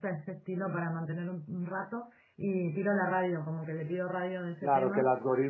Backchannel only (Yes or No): No